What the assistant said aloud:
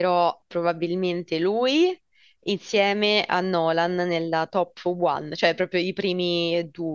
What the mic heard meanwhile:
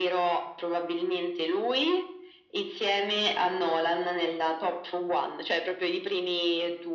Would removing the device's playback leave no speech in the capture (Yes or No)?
Yes